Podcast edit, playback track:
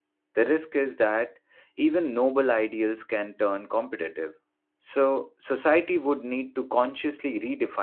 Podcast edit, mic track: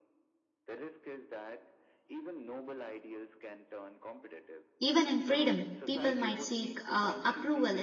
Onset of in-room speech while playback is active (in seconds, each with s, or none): 4.8 s